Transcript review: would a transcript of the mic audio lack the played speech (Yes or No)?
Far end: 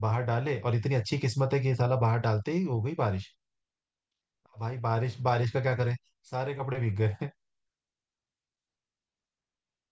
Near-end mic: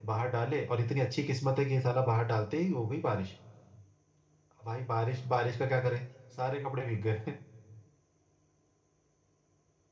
No